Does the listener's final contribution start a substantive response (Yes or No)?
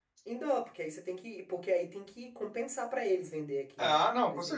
Yes